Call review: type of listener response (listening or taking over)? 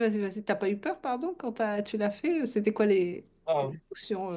taking over